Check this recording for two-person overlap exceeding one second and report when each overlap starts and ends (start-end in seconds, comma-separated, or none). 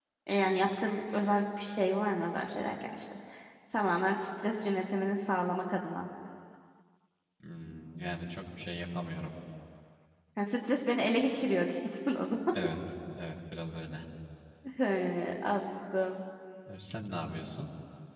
none